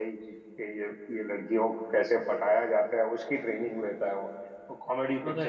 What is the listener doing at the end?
listening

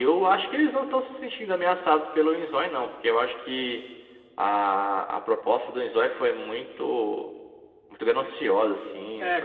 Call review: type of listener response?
taking over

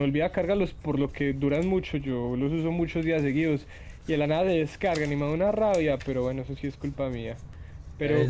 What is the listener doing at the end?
taking over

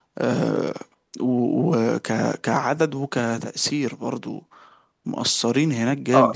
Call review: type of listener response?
taking over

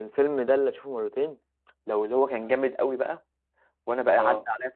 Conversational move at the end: listening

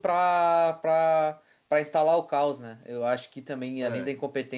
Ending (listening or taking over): listening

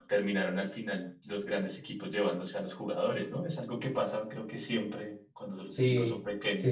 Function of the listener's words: taking over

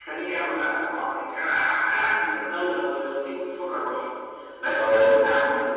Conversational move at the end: listening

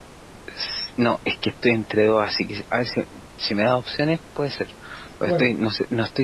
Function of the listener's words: listening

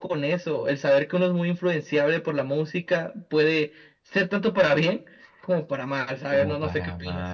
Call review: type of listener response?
taking over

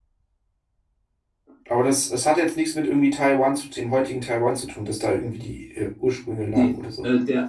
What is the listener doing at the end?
taking over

